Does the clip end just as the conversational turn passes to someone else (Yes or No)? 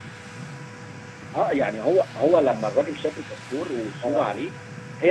No